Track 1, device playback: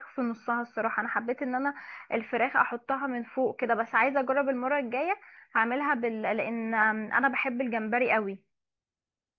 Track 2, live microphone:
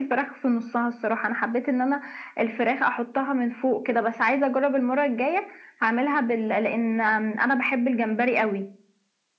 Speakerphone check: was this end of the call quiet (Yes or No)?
Yes